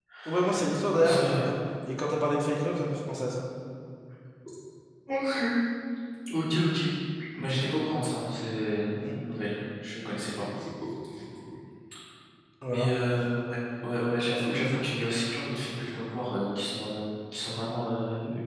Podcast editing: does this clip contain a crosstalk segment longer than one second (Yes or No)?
No